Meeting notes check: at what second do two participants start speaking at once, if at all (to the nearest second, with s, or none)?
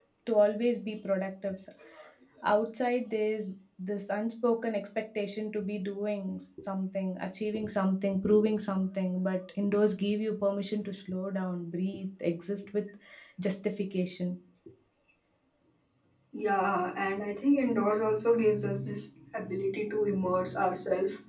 none